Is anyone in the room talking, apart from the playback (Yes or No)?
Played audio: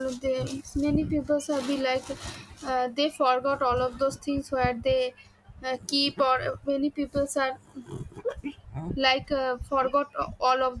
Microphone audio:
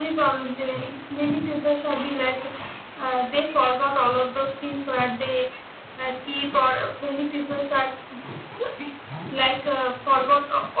No